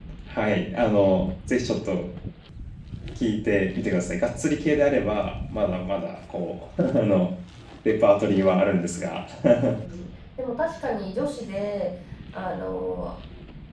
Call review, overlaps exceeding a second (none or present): none